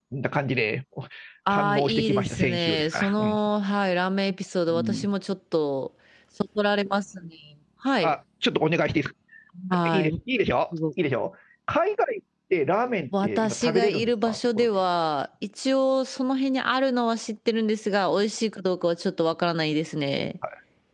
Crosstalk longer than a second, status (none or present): present